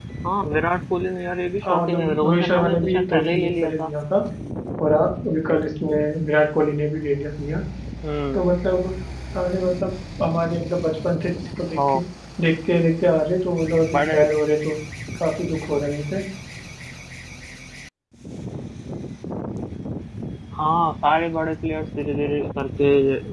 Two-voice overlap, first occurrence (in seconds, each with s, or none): 1.6 s